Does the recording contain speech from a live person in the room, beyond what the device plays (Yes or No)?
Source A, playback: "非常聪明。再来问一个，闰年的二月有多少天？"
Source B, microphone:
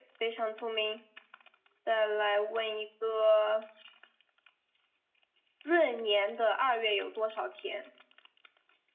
No